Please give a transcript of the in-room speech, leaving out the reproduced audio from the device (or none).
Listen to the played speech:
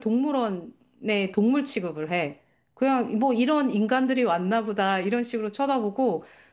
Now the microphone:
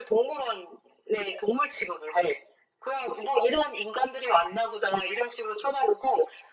none